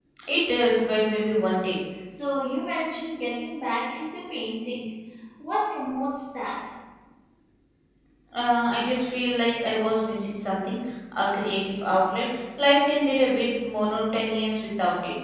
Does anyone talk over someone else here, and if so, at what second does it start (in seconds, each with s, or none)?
none